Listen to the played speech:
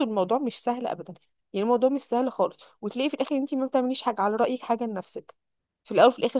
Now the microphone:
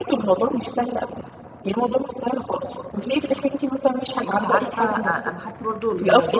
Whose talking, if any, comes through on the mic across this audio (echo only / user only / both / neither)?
both